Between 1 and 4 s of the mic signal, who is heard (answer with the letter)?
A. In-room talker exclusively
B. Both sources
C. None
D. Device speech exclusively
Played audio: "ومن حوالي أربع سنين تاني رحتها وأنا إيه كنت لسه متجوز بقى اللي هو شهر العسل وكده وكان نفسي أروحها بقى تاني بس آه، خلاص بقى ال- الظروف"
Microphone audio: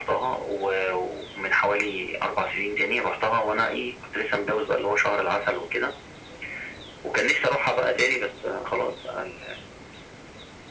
D